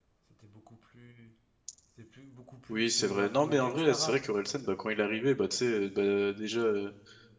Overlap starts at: 2.7 s

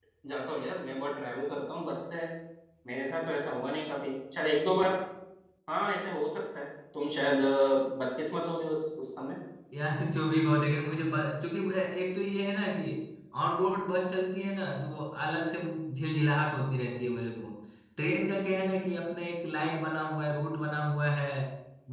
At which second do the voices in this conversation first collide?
none

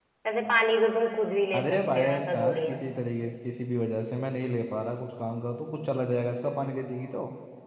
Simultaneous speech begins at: 1.5 s

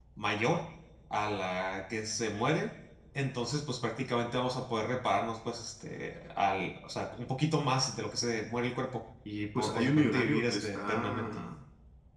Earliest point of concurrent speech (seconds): 9.6 s

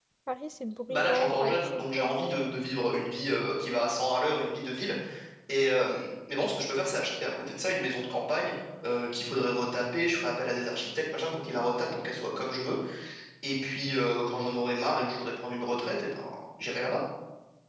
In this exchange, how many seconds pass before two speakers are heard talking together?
0.9 s

